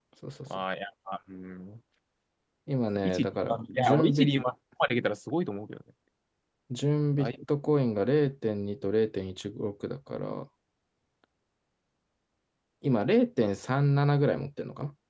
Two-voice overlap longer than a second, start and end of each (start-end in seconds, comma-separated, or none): 3.0-4.3